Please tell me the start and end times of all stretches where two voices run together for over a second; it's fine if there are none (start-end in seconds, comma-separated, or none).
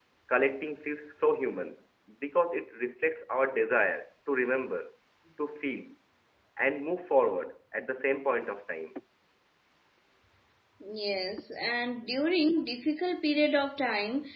none